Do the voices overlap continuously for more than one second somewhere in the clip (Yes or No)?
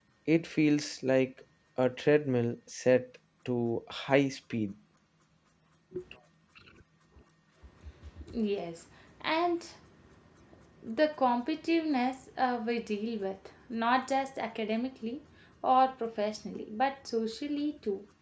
No